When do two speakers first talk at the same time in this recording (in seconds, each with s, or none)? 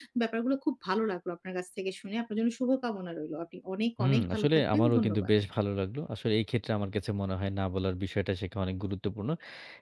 4.0 s